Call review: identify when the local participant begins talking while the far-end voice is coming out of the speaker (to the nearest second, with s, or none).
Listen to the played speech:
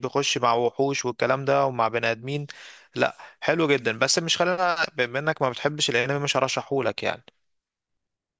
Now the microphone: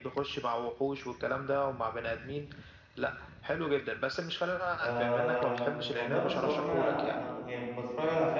5 s